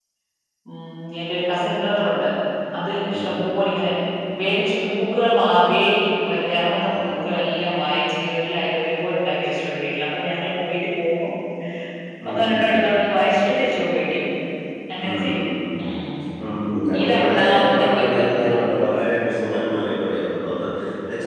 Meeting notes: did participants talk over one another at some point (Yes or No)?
Yes